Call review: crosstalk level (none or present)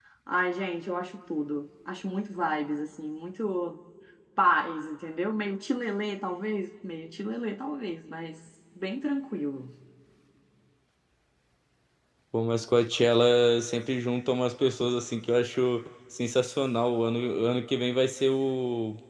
none